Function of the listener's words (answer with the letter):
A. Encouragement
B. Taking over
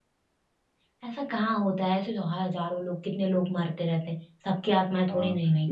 B